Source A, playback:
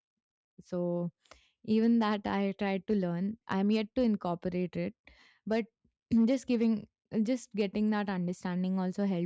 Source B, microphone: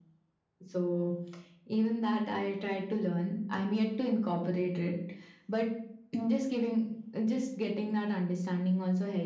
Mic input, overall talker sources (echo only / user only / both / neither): echo only